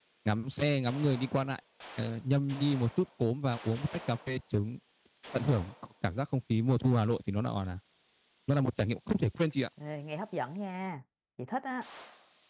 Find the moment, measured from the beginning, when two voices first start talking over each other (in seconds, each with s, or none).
none